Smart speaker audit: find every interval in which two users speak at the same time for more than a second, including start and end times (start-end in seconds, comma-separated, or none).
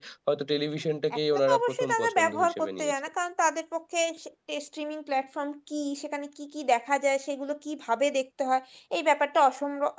1.5-2.9